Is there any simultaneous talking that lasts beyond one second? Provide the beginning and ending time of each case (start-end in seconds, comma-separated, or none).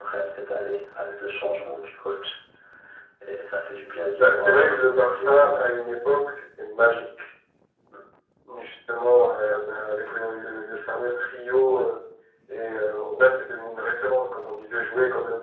4.2-5.6